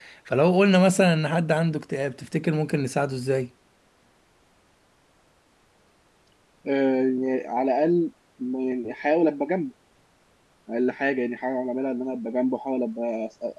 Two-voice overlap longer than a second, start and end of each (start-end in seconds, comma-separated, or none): none